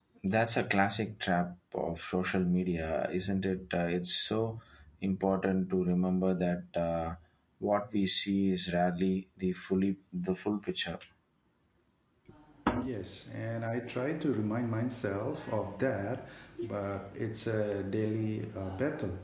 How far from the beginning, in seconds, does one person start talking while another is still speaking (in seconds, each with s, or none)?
none